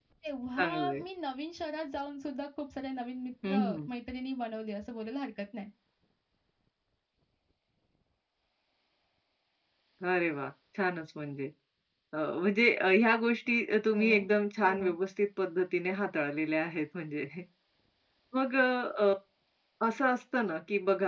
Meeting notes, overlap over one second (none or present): none